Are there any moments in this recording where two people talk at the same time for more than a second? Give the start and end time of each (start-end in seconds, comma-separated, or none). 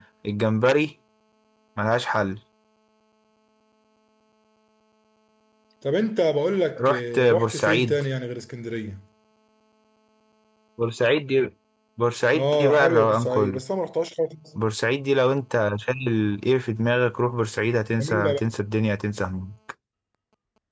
6.8-8.0, 12.3-13.6